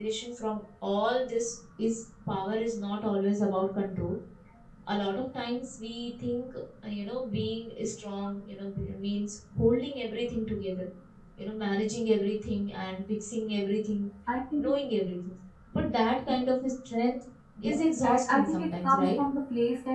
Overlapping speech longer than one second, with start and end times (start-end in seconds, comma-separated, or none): 17.7-19.2